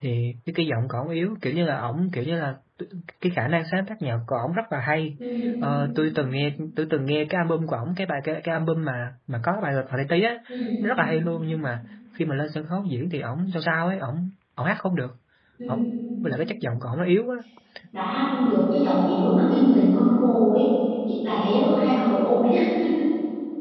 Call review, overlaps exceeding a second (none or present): none